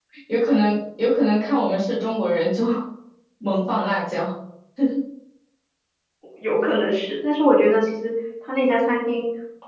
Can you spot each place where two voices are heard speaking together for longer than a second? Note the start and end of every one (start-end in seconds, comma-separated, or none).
none